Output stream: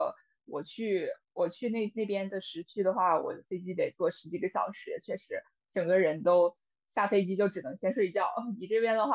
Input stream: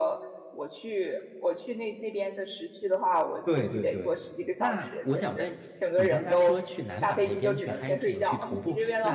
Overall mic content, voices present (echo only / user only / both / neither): both